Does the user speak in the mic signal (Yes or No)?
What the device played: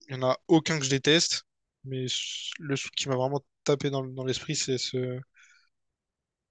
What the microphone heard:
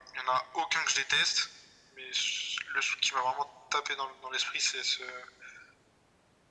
No